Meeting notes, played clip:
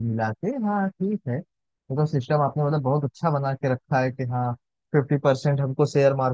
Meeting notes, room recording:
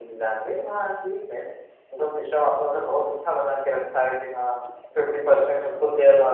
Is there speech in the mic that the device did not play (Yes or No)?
No